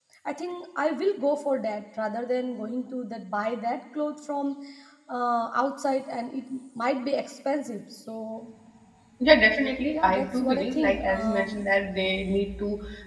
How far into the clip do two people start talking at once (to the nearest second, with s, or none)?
10 s